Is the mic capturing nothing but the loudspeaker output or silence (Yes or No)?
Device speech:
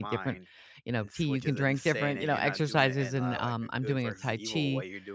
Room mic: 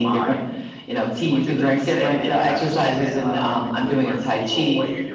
Yes